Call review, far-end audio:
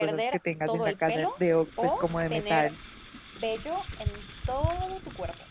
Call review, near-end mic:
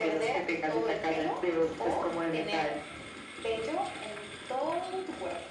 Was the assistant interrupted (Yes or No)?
No